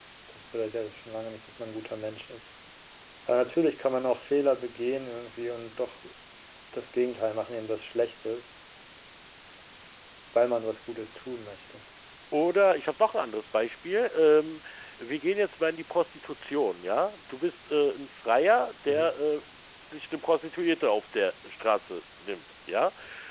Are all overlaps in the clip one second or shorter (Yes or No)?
Yes